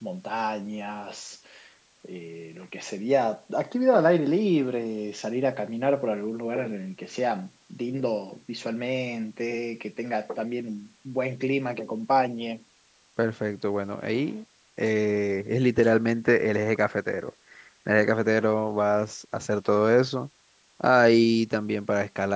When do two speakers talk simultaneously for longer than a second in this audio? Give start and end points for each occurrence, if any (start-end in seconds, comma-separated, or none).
none